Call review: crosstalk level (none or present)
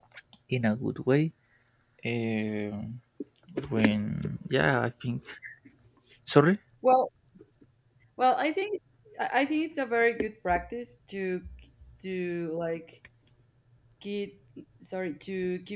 none